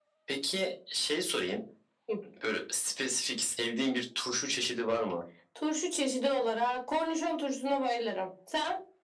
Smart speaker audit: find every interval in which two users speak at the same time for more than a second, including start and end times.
none

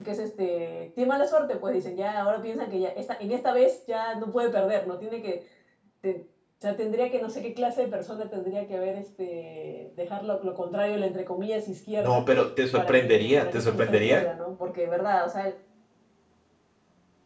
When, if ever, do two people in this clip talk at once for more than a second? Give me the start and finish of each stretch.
12.8-14.2

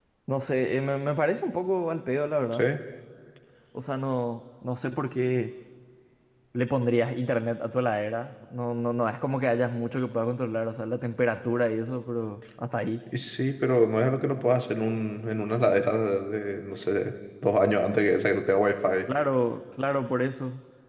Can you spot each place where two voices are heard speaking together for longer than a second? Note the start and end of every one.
none

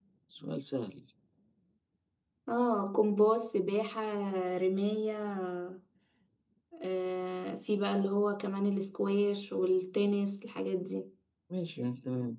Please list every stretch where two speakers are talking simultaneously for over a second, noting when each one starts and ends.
none

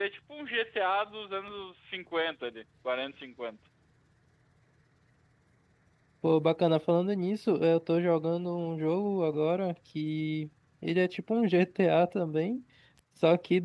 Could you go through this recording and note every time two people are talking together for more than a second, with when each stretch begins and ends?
none

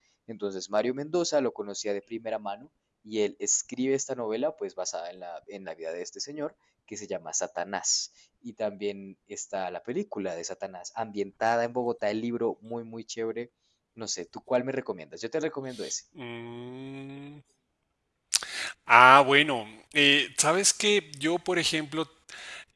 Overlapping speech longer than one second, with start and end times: none

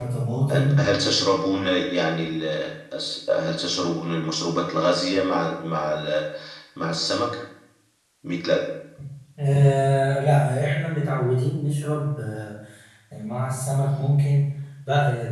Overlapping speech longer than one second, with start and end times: none

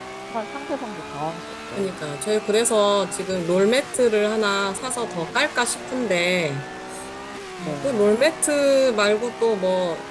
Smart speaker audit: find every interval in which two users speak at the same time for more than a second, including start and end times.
none

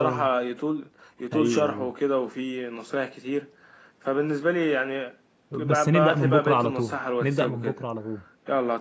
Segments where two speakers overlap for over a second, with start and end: 5.7-7.8

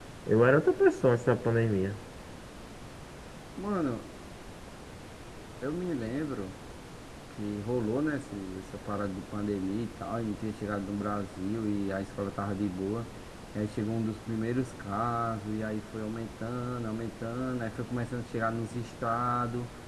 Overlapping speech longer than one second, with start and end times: none

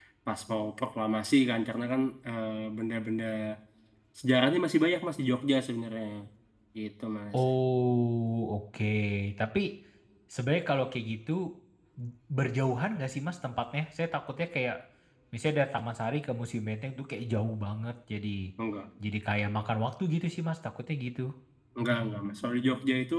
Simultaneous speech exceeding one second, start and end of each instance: none

